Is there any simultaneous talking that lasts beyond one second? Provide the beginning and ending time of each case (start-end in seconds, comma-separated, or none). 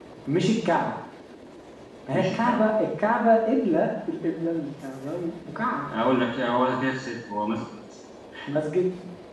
none